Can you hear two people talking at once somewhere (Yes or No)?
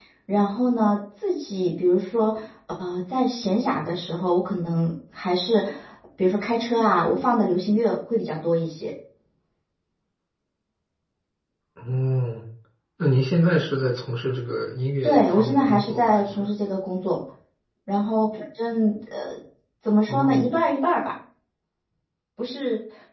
Yes